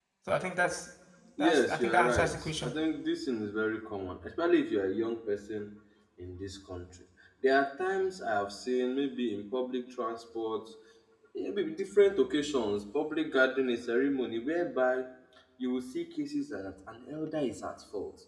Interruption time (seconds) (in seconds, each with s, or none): 1.4 s